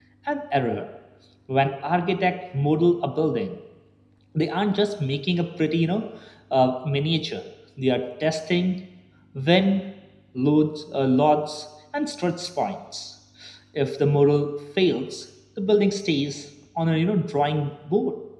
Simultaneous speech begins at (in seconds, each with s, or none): none